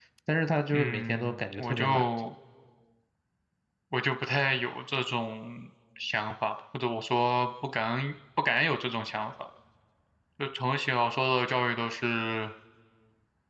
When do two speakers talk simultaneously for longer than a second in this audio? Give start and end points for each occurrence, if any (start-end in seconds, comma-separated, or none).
0.7-2.3